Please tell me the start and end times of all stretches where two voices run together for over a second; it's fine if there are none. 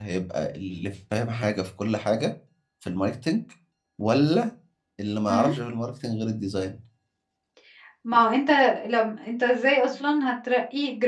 none

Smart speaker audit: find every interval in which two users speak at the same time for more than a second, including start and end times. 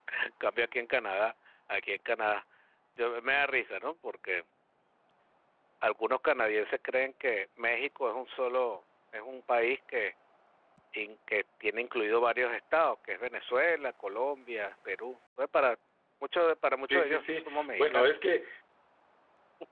16.9-18.1

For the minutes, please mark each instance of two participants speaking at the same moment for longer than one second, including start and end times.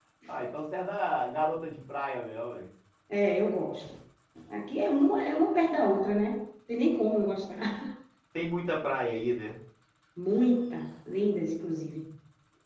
none

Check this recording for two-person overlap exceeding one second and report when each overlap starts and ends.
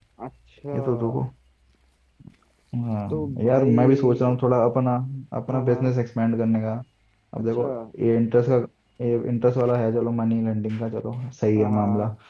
3.1-4.4

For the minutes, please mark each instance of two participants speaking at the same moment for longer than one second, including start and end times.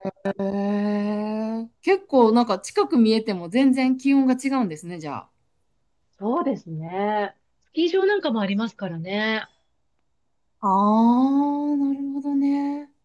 none

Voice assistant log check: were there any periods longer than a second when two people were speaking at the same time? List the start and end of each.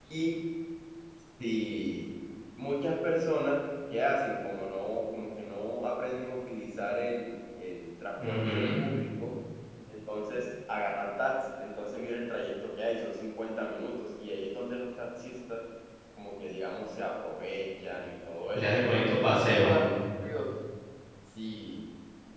none

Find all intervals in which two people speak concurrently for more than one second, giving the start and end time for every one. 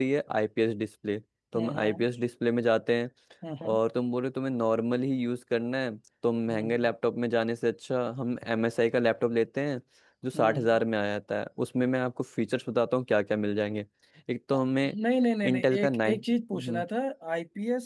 15.4-16.8

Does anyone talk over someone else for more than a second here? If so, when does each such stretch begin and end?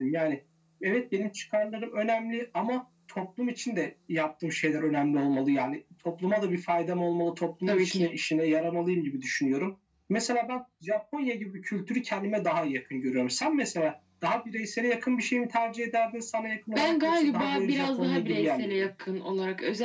16.8-18.9

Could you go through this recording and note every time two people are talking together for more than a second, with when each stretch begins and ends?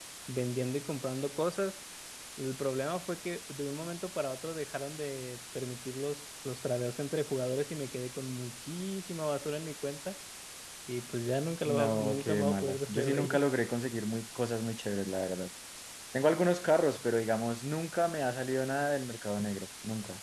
11.7-13.4

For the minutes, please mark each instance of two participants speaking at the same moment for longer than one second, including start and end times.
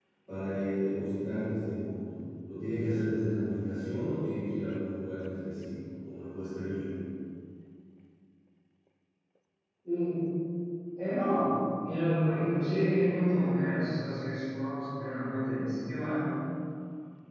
none

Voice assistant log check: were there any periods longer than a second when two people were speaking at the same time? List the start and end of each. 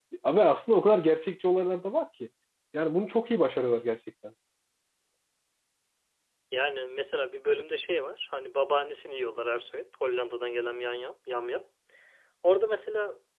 none

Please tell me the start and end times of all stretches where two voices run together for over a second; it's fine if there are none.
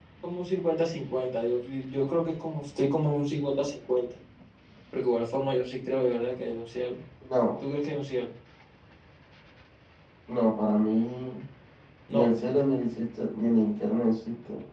none

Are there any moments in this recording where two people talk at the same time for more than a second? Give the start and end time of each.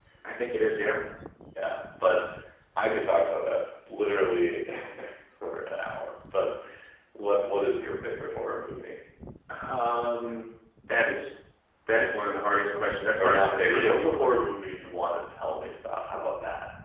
13.2-14.4

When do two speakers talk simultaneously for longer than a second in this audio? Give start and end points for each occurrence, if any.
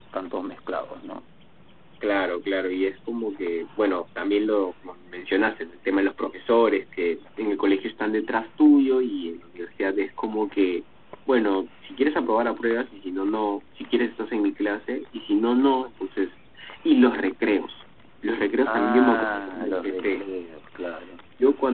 18.6-20.2

